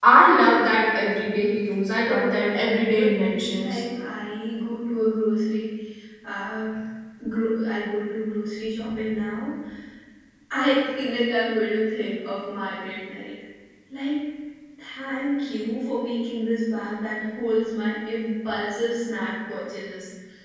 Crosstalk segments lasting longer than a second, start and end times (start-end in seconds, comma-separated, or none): 2.0-3.8